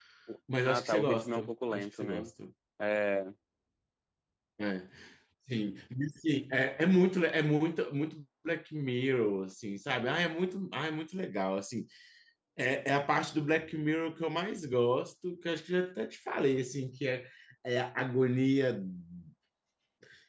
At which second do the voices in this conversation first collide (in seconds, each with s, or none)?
0.6 s